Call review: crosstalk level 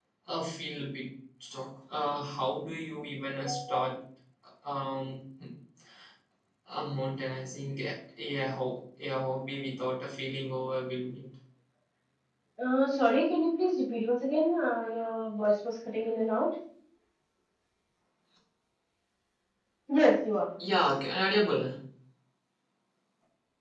none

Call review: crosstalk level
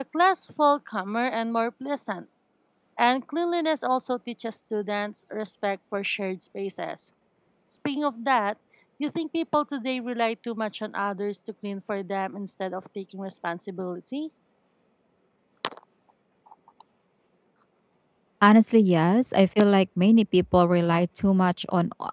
none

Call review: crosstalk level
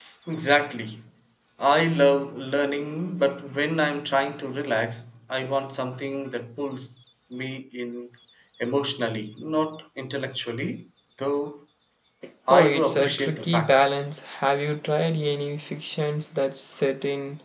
present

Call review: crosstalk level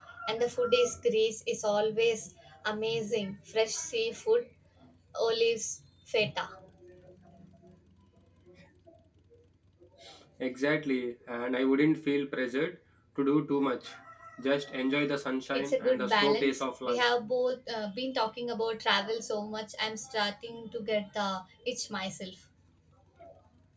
present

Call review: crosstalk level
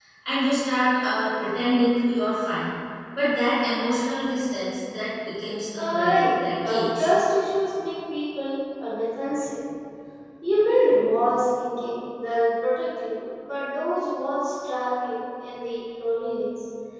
present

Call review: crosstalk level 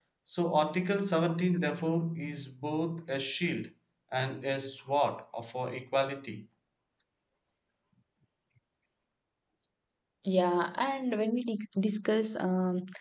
none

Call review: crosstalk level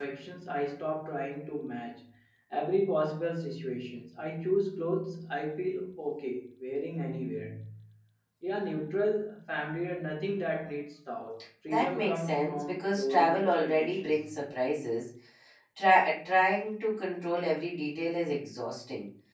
present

